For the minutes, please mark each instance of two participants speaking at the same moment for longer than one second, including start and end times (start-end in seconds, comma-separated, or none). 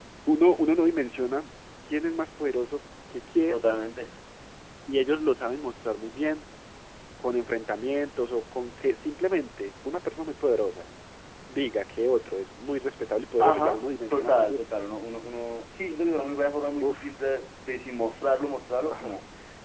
13.4-14.6